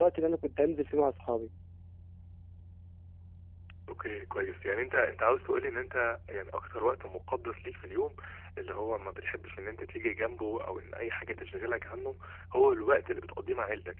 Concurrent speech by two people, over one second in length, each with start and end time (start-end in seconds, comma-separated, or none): none